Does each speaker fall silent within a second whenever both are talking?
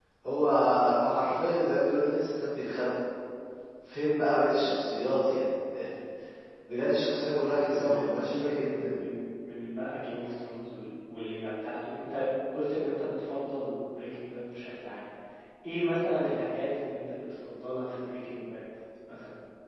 No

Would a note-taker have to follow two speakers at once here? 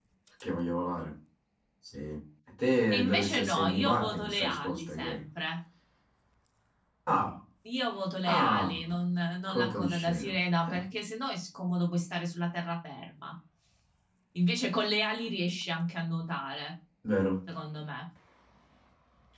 Yes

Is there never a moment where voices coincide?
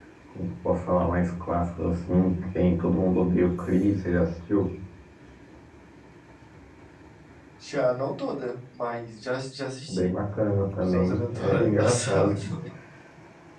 No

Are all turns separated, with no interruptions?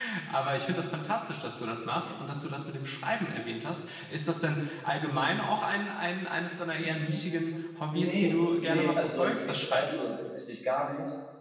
No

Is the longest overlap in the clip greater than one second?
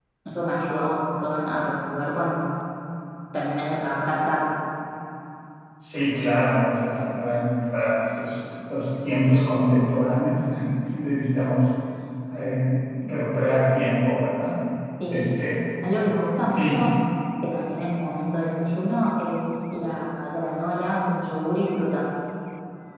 No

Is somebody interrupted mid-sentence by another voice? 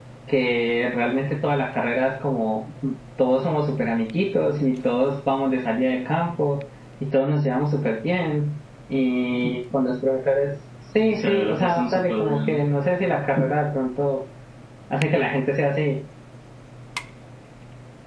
Yes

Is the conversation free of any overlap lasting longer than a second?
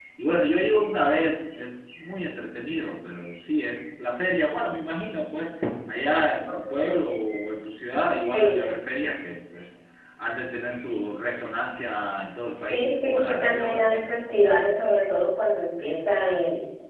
No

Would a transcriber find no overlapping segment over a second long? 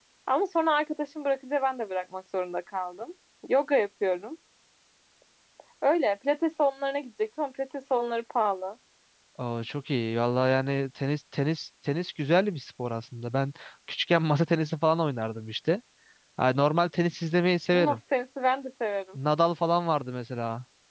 Yes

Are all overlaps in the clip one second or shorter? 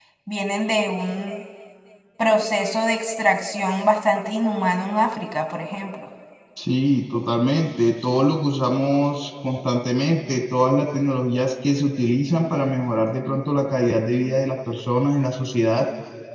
Yes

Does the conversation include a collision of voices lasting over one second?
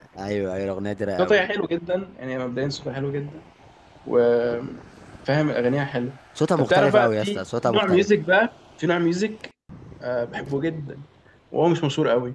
Yes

